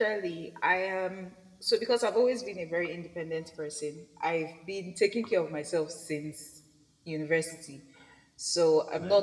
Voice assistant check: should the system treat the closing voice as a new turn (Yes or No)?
No